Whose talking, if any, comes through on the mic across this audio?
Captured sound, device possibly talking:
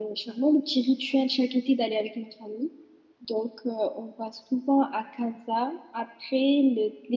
user only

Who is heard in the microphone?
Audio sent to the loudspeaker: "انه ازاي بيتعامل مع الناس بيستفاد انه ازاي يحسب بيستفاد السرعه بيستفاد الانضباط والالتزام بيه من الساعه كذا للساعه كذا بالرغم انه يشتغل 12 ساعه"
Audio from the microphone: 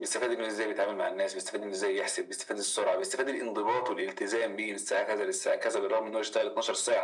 echo only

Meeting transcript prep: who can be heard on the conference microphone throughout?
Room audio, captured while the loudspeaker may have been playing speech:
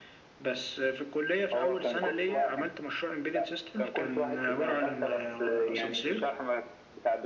echo only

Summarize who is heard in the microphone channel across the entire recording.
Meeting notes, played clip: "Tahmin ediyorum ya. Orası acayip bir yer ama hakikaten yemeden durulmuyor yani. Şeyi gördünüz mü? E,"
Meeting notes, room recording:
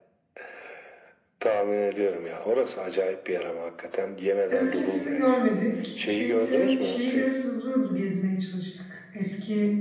both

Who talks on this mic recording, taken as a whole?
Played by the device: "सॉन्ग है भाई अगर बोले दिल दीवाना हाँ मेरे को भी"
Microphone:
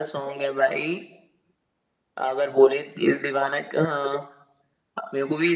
echo only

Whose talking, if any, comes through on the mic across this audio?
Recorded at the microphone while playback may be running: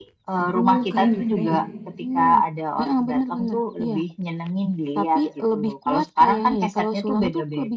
both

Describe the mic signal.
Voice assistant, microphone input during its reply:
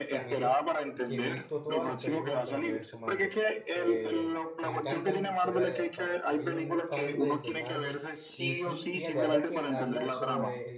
both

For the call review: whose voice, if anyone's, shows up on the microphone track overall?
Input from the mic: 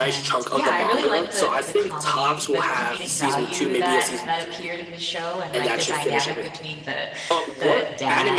both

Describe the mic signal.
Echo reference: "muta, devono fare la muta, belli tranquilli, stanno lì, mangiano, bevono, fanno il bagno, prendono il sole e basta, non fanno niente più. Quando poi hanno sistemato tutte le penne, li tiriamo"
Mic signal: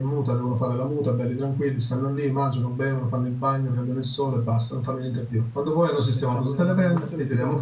both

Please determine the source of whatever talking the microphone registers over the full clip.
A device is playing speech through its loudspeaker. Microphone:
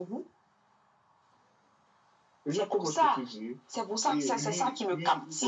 echo only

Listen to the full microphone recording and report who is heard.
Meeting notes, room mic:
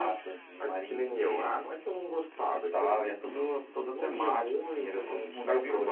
echo only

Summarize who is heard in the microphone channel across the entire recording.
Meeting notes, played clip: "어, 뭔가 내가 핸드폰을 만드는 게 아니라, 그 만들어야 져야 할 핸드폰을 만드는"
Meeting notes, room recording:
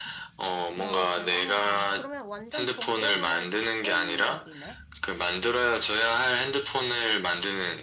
both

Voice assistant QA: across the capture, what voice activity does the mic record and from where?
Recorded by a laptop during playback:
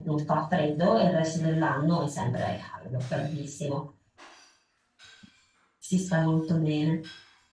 user only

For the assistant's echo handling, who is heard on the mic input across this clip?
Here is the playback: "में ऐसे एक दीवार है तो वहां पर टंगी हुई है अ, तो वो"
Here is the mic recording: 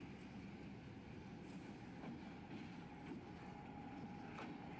neither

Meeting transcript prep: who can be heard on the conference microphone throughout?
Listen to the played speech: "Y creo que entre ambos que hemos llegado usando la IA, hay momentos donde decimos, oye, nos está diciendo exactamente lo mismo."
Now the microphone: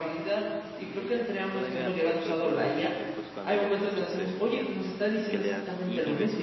both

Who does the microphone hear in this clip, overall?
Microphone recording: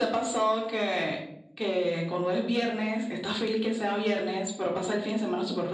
echo only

